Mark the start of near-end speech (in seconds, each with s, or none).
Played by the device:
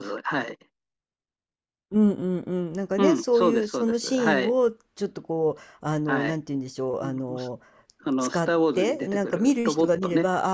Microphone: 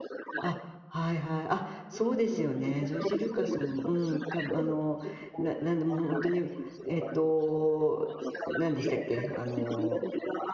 0.4 s